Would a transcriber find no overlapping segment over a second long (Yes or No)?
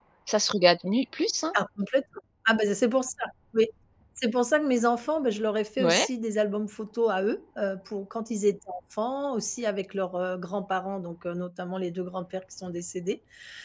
Yes